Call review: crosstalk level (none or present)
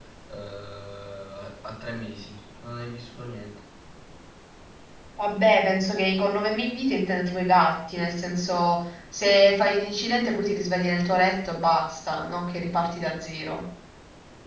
none